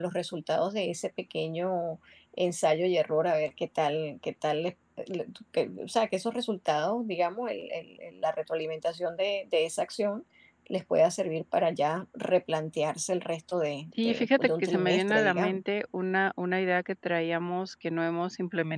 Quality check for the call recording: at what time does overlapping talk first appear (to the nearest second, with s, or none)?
14 s